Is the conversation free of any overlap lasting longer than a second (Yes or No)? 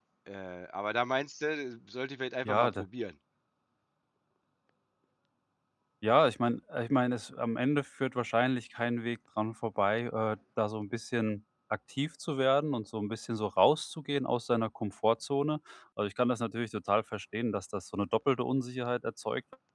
Yes